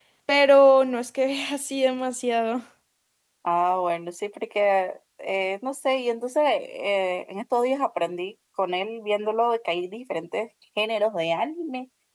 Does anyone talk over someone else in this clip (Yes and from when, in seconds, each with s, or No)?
No